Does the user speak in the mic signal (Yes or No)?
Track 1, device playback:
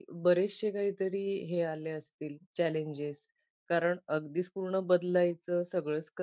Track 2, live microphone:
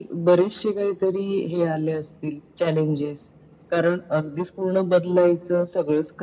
No